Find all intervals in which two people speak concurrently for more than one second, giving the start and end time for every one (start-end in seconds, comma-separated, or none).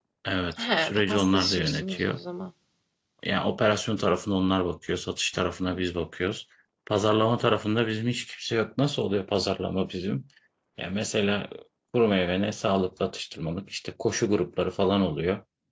0.6-2.2